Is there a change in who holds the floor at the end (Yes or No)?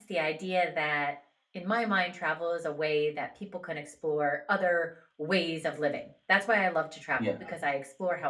No